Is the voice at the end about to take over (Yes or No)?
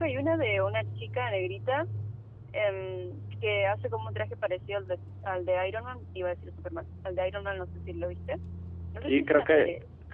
Yes